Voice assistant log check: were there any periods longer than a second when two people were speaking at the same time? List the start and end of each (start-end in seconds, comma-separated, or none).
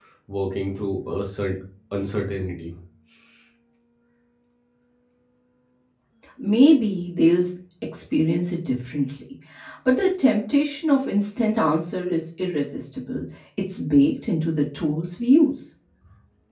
none